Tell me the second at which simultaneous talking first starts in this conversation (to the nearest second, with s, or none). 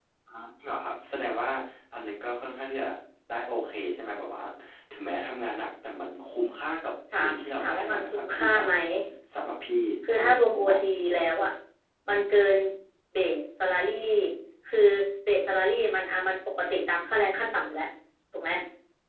7 s